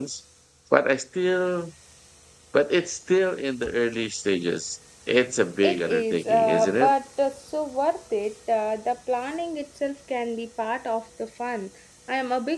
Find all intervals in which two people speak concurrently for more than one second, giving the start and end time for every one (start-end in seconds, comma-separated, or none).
5.6-6.9